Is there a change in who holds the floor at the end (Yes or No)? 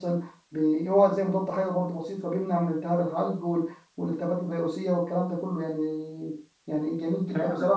No